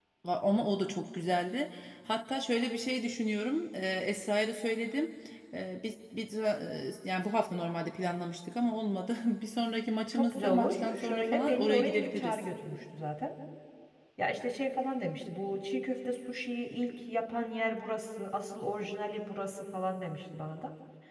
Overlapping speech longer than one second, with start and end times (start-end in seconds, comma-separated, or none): 10.1-12.4